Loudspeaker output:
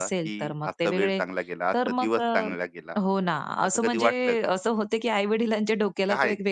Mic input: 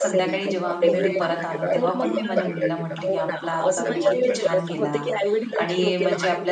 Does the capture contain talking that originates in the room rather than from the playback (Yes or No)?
Yes